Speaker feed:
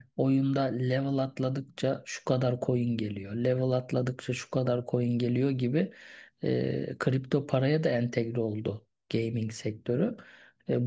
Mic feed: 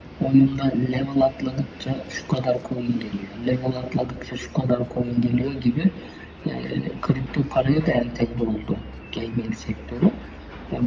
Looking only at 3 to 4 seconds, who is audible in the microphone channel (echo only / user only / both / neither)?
echo only